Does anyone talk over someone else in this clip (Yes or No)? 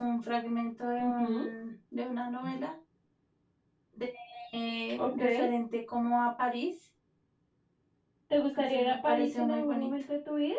Yes